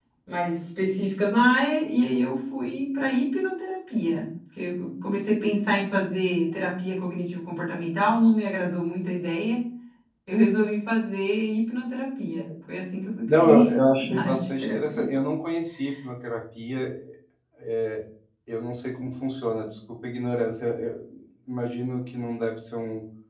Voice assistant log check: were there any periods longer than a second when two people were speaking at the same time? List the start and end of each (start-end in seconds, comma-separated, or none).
13.3-15.1